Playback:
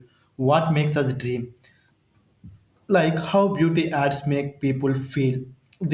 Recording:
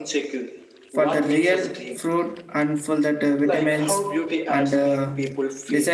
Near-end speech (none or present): present